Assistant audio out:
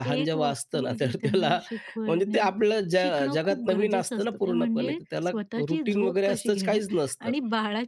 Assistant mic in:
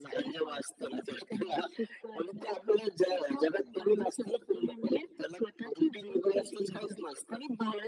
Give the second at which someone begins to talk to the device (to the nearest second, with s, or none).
none